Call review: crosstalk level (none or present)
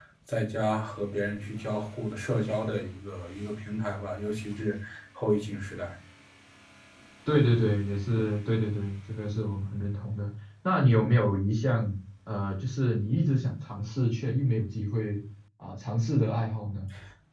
none